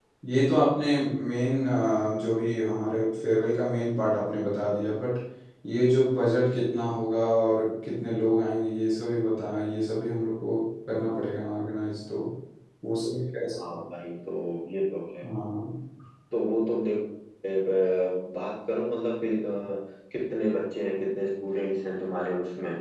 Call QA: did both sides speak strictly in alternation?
Yes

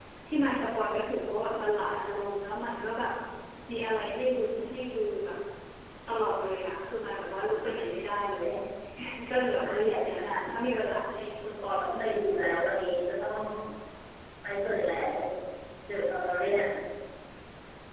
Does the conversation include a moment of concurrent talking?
Yes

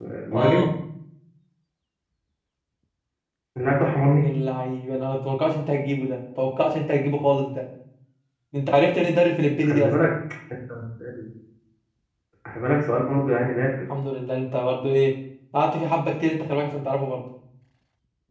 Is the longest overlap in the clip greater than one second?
No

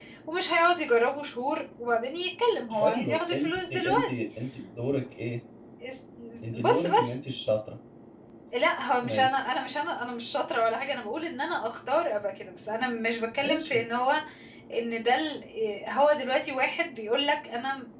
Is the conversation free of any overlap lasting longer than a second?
No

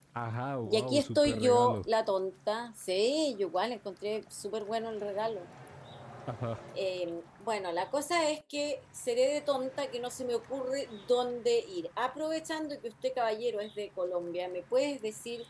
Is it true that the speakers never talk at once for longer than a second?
No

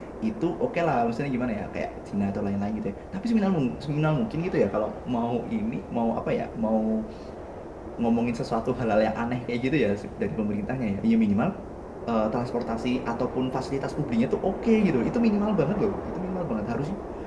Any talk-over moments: No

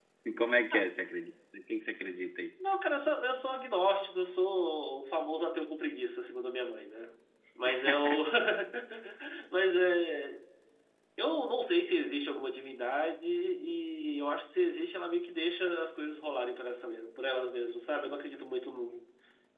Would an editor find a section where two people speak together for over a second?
No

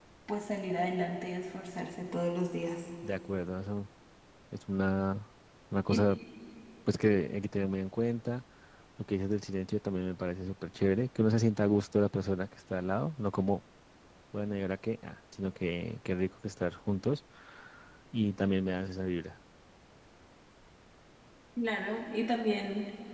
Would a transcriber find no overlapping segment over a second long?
Yes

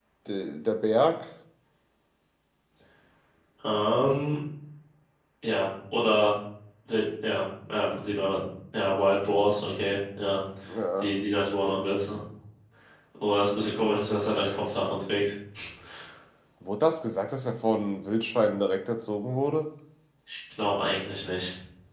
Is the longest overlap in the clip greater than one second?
No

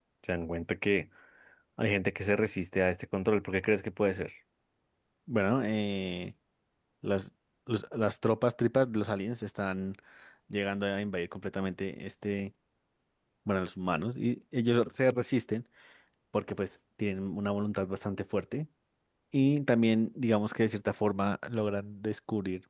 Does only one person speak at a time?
Yes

